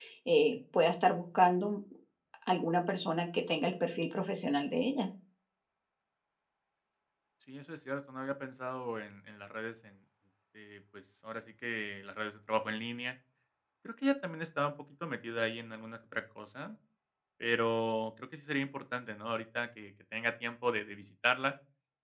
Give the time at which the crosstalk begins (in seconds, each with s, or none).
none